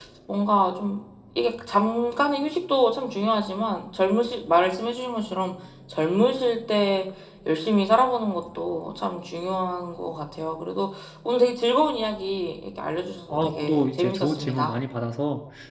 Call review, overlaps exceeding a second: present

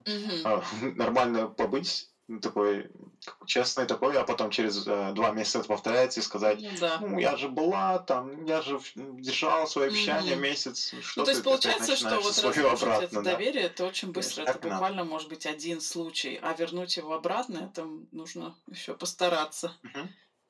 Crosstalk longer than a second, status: present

